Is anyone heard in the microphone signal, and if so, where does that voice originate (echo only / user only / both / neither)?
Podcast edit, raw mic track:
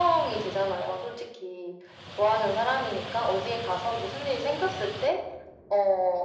echo only